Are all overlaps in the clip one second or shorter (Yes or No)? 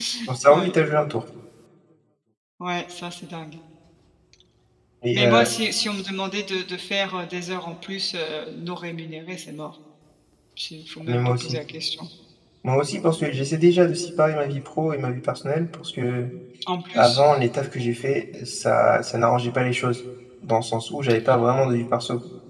Yes